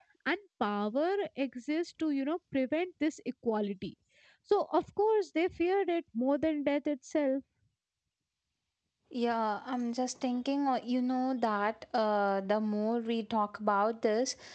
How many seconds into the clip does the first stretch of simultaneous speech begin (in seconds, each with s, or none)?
none